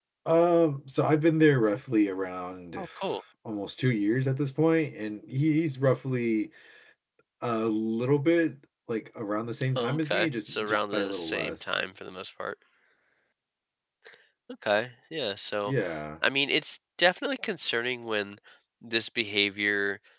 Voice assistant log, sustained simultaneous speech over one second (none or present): present